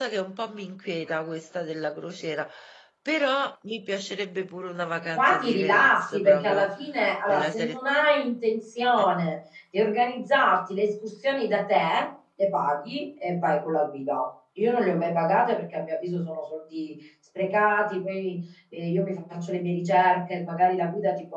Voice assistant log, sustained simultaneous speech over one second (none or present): present